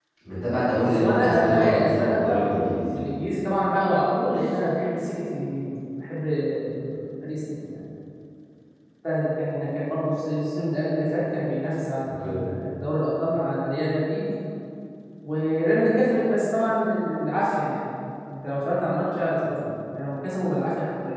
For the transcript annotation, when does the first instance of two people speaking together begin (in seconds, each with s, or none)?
0.8 s